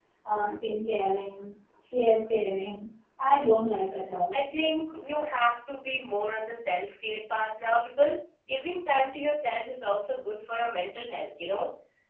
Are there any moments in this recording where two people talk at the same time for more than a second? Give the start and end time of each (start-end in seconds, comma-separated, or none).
none